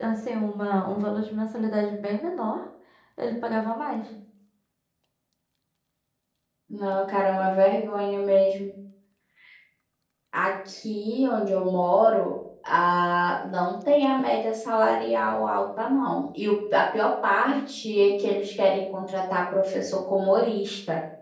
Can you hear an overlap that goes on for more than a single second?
No

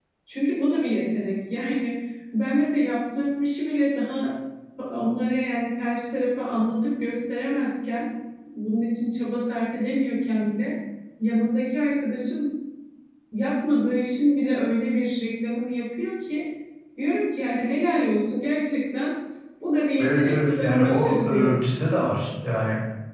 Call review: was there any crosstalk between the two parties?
Yes, from 20.0 s

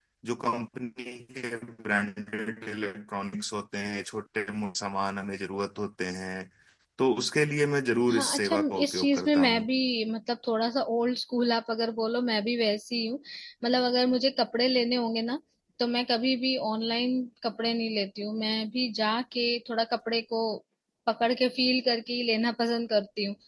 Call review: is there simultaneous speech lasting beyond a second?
Yes, from 8.1 s

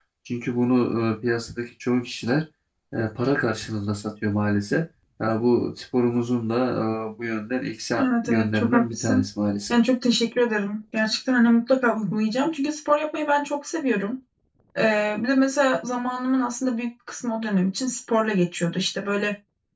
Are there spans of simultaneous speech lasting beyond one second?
Yes, from 8.0 s

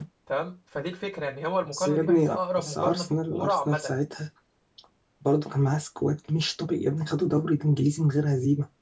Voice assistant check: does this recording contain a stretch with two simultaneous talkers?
Yes, from 1.7 s

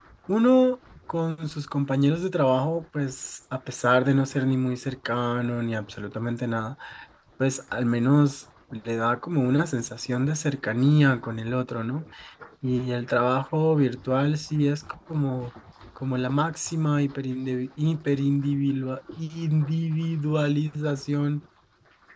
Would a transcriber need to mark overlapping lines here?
No

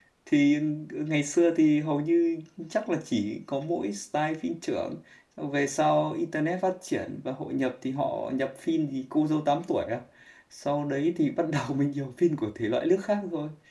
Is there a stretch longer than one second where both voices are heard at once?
No

